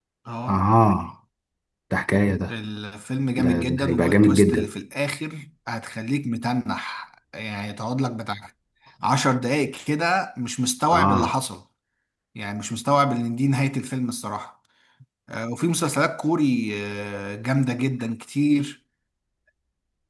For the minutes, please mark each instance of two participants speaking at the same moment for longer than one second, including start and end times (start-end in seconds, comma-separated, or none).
3.4-4.7